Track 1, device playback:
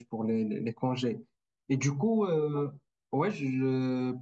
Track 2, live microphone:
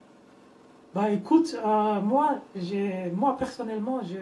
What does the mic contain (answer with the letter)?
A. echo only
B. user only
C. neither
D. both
B